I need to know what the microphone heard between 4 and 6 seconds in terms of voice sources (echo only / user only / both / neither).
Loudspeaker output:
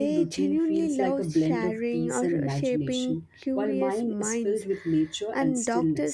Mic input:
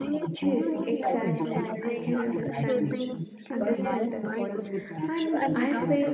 both